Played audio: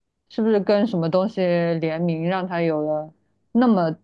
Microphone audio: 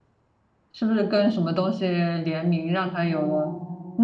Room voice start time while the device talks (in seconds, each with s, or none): 2.9 s